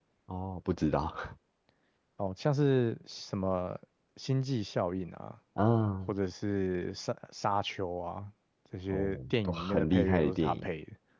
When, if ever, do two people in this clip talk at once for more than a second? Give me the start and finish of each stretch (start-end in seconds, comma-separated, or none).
8.9-10.7